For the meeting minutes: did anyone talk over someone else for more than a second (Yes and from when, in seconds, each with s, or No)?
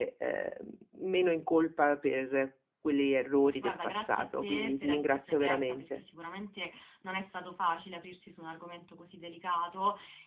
Yes, from 3.6 s